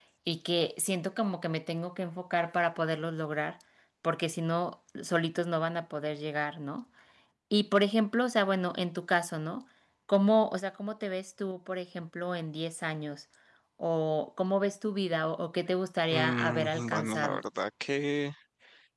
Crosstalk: present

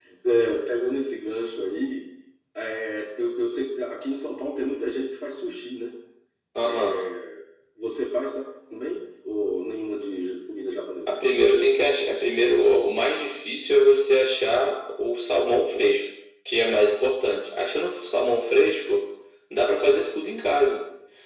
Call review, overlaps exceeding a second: none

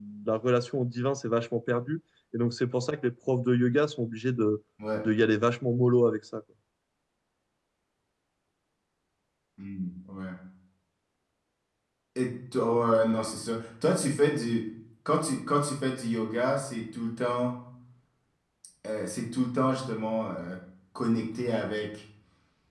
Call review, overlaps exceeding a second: none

